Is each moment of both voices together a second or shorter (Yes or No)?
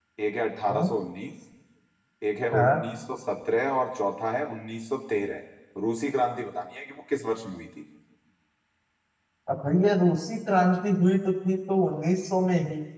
Yes